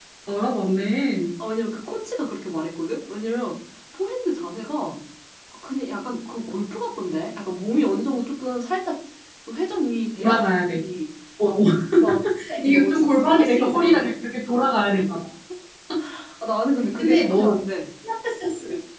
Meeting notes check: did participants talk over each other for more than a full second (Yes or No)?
Yes